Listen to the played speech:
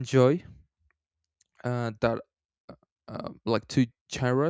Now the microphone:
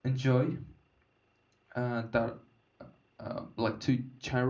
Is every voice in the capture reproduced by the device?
Yes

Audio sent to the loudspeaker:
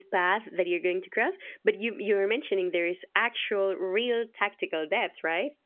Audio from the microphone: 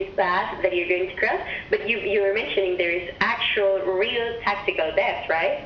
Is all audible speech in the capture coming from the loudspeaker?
Yes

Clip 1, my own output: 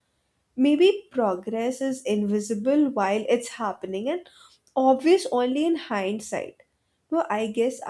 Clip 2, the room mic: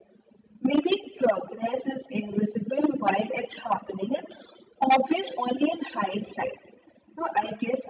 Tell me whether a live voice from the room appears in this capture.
No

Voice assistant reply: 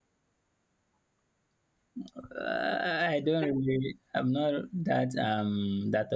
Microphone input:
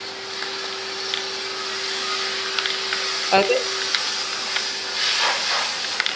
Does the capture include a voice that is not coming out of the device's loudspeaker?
Yes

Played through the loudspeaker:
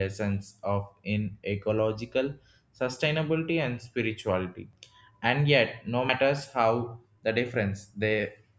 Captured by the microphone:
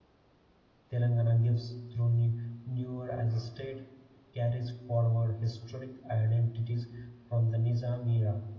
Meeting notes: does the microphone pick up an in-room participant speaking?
Yes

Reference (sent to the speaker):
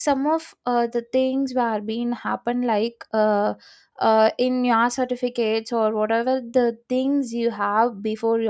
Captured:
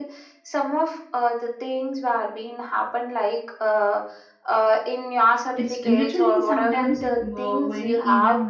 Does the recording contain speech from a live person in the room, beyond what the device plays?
Yes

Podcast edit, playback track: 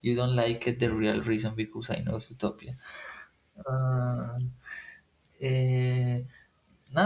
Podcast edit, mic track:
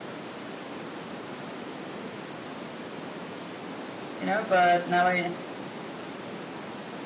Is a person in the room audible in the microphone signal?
Yes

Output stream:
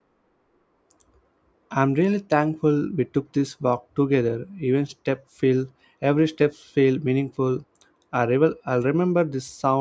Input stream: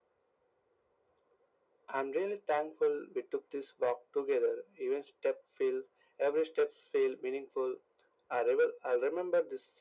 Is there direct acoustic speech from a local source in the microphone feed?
No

